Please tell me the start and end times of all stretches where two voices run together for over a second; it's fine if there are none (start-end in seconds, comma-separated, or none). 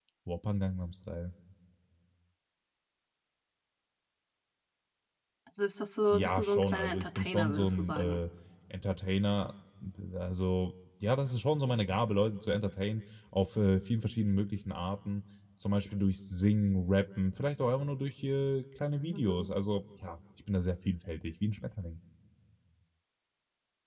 6.1-8.2